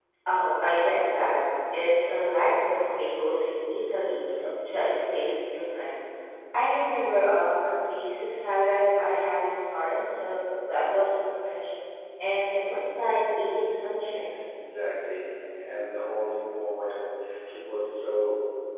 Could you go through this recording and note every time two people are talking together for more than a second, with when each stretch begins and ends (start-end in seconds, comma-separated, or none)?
none